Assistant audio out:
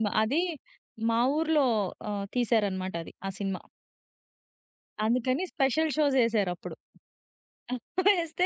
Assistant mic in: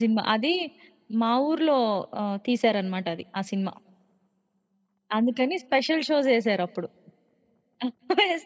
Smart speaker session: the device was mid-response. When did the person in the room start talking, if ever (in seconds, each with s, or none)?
none